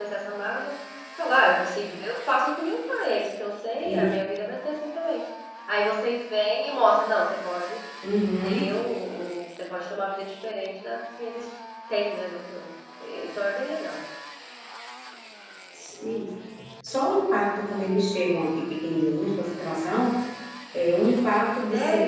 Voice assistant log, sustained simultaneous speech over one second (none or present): none